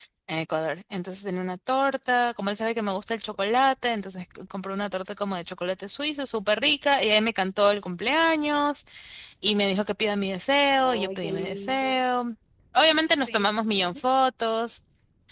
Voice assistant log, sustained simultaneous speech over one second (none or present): present